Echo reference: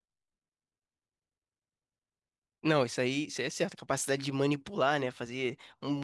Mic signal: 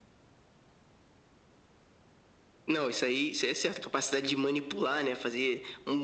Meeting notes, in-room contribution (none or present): none